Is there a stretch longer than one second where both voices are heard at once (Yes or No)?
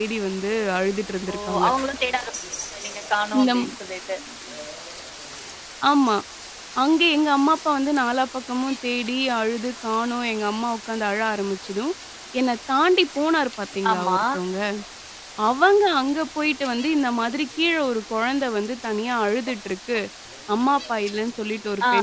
No